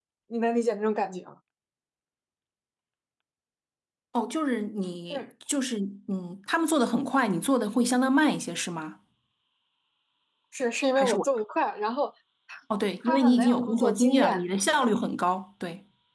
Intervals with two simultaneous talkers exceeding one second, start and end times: 13.1-14.4

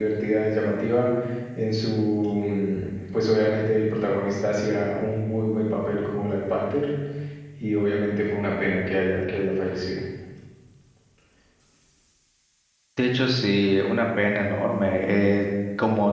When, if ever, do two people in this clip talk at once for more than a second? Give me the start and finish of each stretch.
none

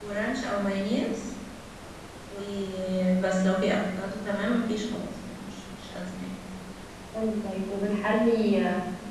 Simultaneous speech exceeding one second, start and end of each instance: none

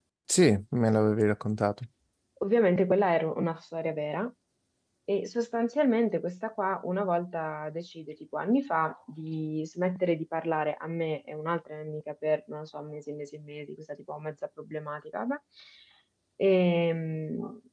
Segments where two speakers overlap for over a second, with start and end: none

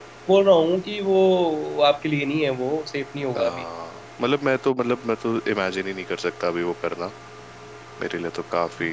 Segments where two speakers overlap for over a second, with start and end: none

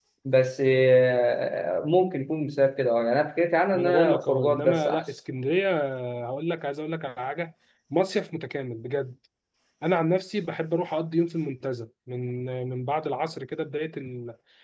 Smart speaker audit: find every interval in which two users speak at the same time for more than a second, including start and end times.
3.7-5.0

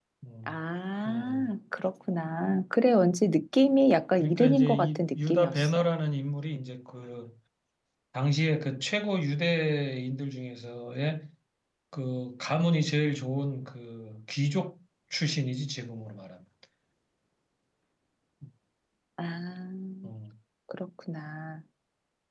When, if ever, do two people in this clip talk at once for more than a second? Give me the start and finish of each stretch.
4.2-5.9

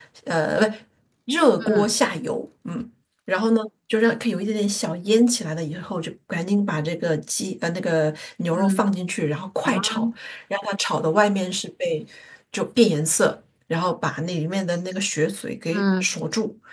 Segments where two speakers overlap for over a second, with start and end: none

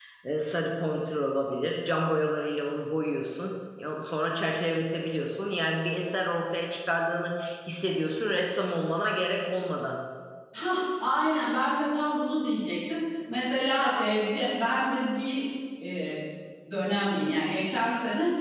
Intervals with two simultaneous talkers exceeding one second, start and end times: none

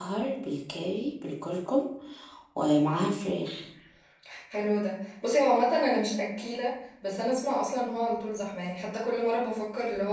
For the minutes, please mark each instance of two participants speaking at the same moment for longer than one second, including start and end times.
none

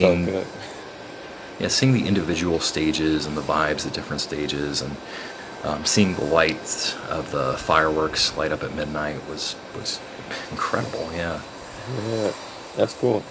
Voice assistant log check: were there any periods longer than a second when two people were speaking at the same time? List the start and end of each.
none

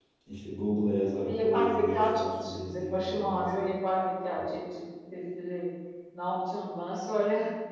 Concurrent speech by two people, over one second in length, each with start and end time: 1.2-3.8

